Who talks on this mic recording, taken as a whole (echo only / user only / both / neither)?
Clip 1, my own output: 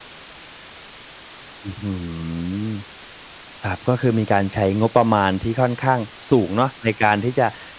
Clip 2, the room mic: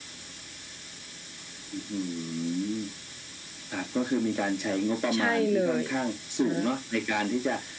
both